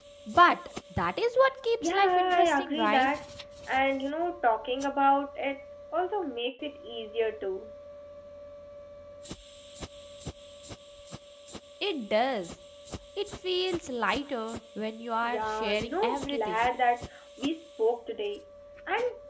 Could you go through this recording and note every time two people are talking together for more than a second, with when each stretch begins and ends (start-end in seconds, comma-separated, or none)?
1.8-3.1, 15.2-16.6